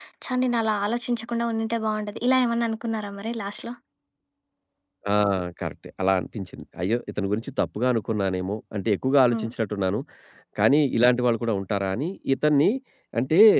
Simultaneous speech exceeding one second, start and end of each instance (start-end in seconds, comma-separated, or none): none